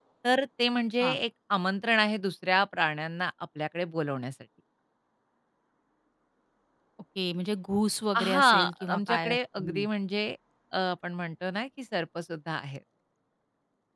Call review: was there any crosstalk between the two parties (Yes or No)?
Yes